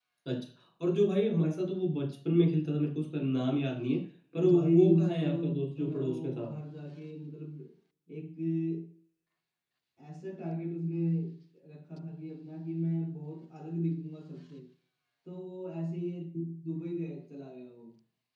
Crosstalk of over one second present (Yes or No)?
Yes